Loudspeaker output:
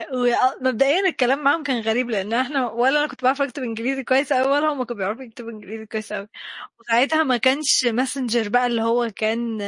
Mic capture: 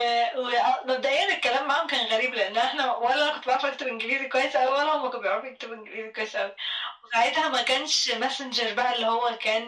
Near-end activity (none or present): none